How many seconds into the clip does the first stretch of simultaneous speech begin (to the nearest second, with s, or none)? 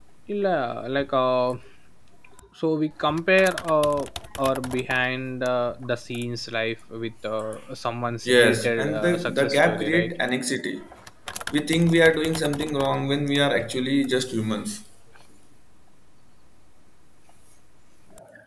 8 s